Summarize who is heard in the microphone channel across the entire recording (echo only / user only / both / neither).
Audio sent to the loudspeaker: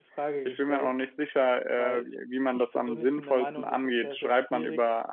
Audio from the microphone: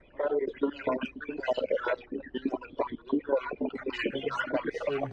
both